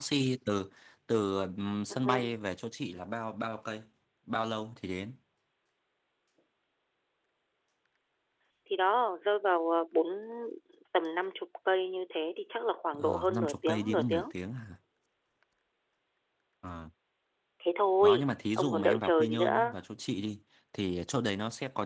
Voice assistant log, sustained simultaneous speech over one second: present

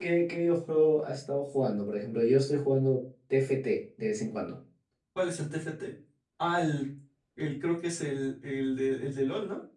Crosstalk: none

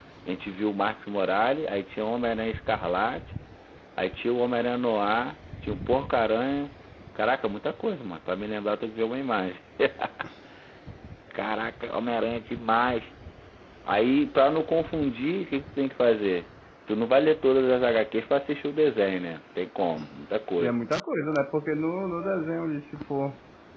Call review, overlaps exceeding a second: none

